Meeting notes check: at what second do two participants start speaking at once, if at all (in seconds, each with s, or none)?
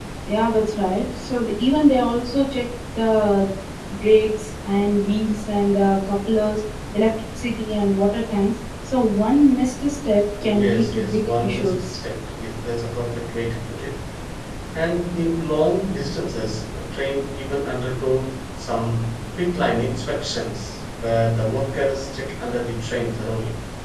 10.4 s